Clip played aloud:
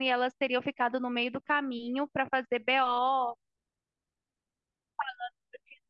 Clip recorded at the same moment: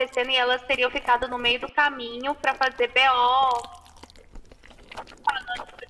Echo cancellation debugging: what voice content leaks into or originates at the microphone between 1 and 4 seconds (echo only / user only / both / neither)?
echo only